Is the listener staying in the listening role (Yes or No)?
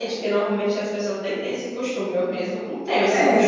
No